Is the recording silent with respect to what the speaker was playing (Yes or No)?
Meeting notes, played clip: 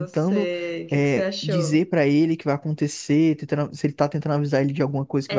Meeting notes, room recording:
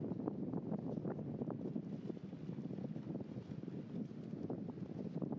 Yes